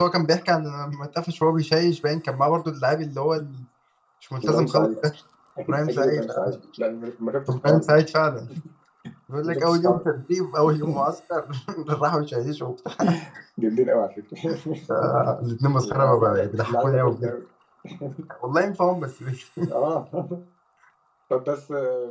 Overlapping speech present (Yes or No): Yes